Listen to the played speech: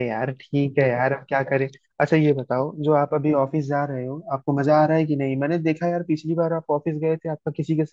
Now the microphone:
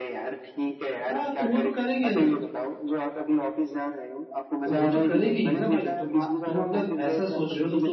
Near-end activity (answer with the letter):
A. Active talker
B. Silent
A